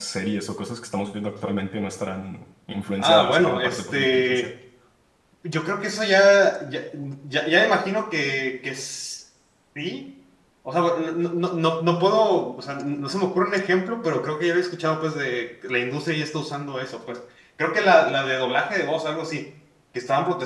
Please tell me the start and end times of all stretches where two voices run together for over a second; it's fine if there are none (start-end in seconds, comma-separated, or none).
3.0-4.5